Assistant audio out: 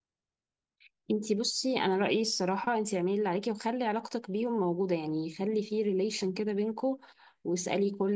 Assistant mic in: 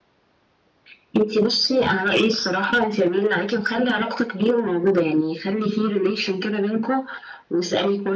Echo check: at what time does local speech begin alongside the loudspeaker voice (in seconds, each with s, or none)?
none